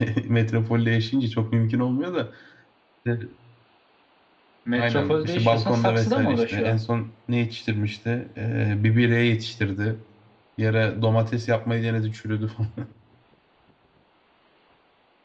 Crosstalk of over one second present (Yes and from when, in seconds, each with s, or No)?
Yes, from 4.8 s